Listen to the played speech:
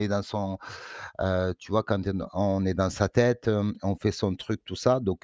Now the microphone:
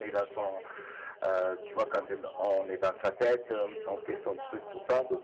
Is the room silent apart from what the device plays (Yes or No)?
No